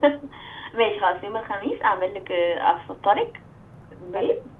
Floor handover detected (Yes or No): No